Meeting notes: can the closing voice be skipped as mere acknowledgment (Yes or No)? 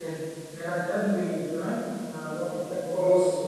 Yes